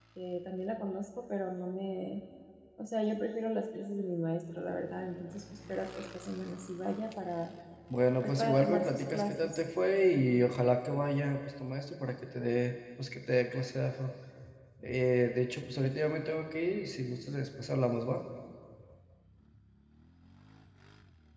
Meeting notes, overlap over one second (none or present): present